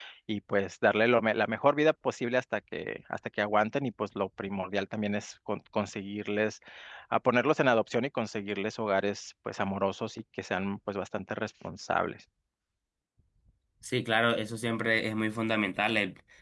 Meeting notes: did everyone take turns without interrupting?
Yes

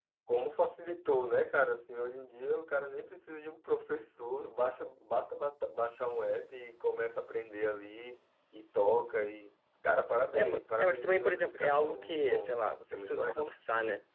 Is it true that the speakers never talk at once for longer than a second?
No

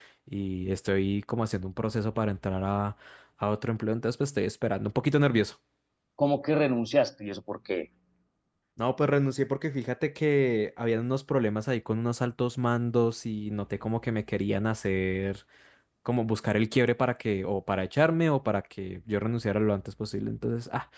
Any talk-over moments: No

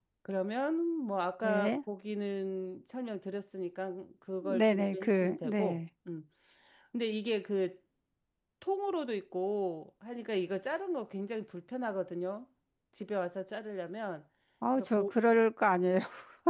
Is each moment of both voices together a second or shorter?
No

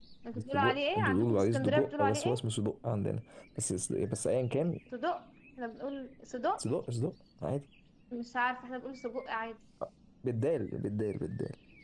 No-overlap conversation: No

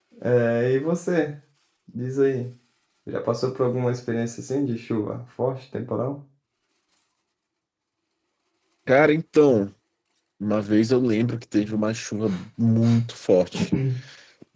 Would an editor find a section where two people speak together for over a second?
No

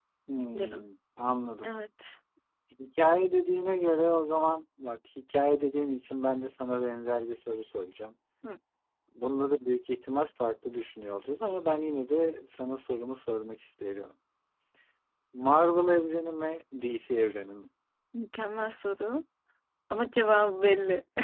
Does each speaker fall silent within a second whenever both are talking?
Yes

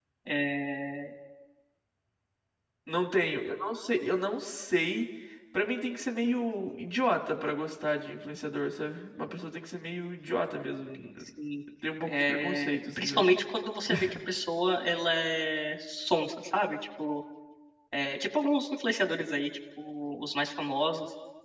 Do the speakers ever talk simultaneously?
Yes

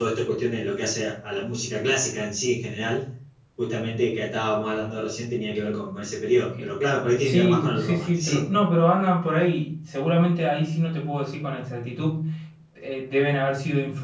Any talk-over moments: Yes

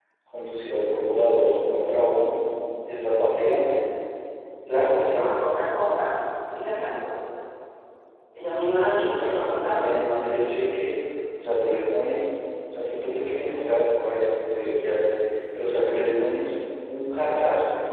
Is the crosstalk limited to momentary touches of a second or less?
No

